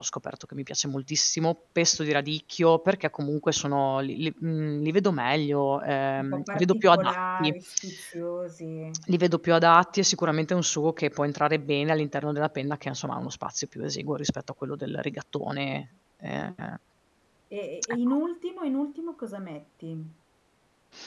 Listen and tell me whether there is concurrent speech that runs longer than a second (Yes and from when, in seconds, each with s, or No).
Yes, from 6.2 s